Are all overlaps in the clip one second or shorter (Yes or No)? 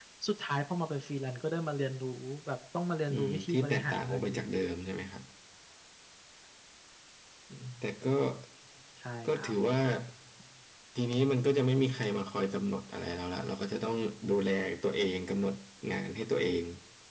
No